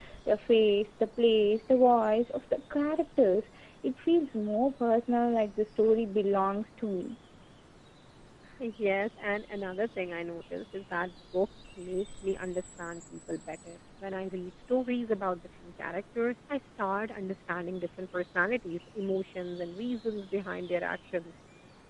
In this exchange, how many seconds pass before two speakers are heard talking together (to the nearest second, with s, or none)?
none